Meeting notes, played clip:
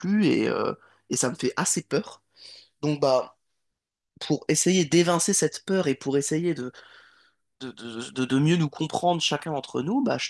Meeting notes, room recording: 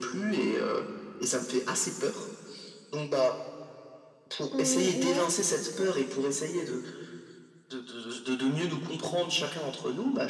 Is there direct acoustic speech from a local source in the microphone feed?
Yes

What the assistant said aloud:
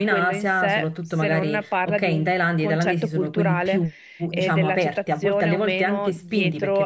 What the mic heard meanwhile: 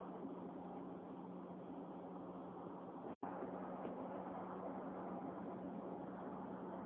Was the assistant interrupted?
No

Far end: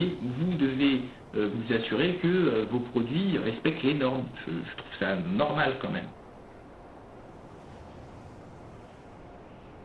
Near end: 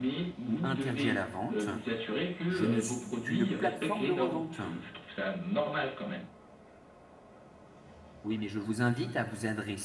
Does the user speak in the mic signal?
Yes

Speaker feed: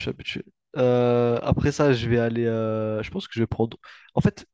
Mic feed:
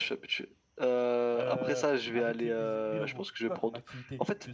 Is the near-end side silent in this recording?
No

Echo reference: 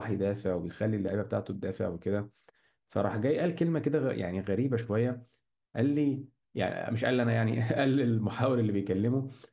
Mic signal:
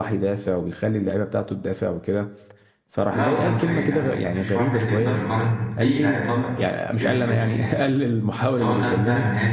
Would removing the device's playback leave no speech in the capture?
No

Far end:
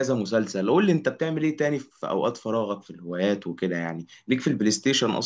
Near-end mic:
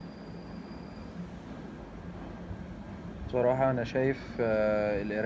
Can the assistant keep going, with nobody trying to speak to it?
No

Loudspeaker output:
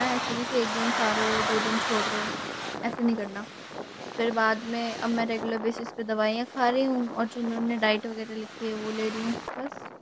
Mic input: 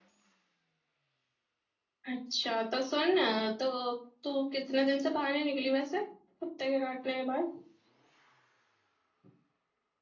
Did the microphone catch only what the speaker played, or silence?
No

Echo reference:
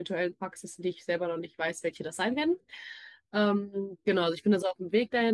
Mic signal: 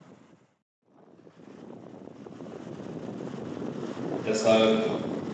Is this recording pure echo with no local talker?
No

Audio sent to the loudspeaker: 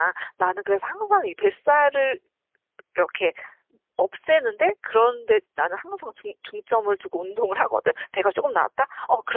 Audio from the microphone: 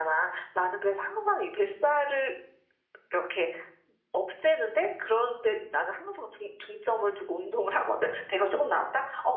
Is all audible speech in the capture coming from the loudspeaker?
Yes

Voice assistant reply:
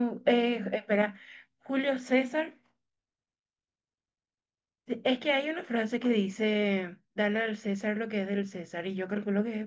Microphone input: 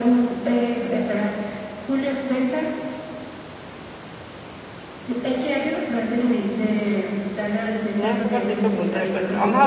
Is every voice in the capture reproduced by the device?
No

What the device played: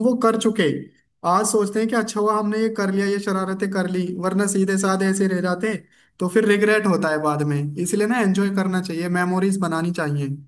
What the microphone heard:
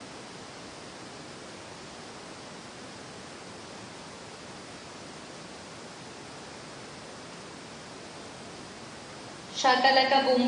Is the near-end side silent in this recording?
No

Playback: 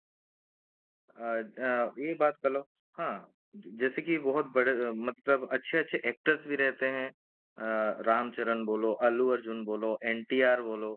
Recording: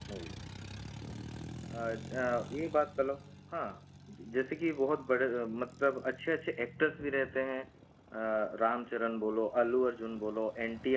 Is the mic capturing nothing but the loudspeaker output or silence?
Yes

